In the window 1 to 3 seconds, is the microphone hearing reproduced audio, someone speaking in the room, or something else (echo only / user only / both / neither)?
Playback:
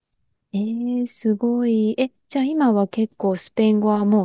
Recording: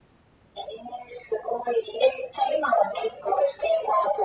echo only